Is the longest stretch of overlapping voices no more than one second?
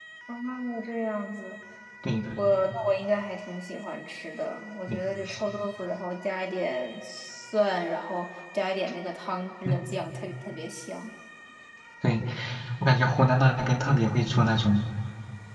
Yes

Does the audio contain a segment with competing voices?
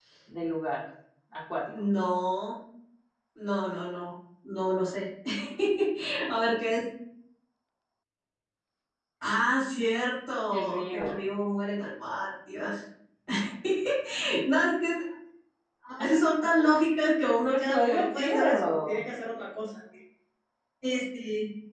Yes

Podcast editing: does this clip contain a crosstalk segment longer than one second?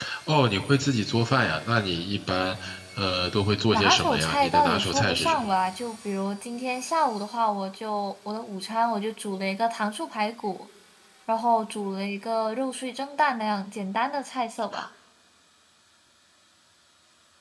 Yes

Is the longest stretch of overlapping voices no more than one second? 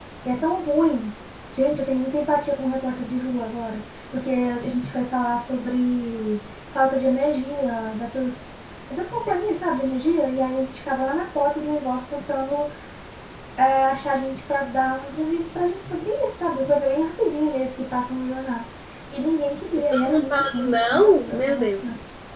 No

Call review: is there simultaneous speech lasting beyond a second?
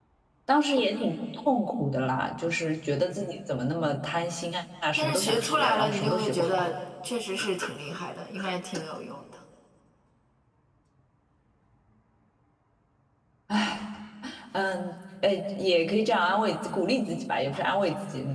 Yes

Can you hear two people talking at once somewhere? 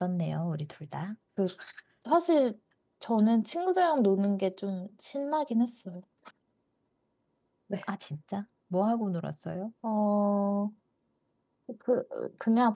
No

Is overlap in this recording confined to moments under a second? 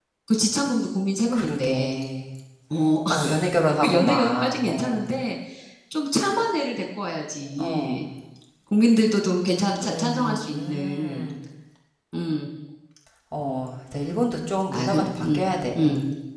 No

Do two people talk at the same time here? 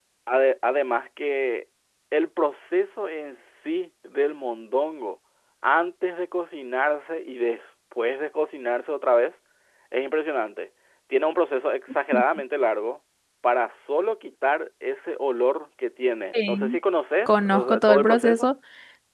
Yes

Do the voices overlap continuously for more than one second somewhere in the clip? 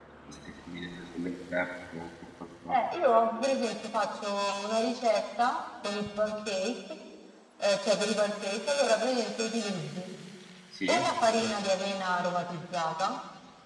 No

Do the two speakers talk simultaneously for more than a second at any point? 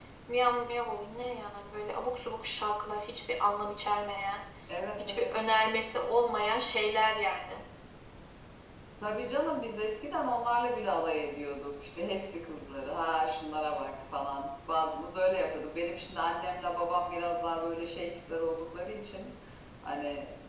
No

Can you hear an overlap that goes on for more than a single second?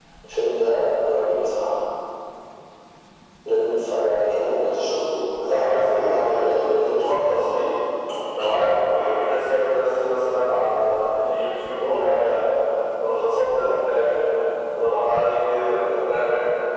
Yes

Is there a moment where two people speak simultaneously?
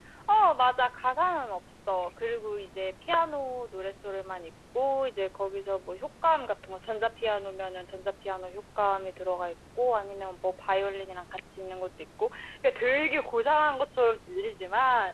No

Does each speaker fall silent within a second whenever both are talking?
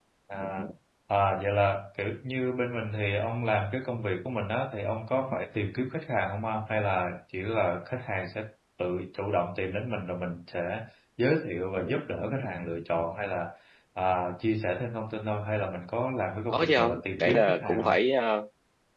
No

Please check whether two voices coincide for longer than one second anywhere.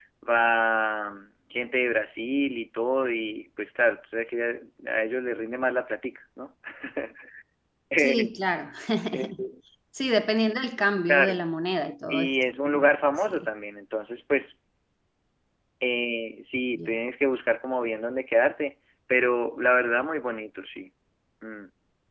No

